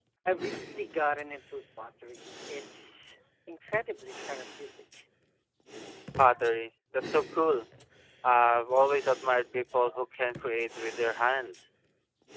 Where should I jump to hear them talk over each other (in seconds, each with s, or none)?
none